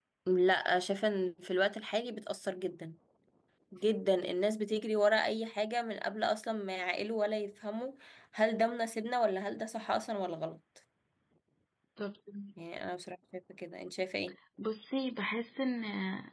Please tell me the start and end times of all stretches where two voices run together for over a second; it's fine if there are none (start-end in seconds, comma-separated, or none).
none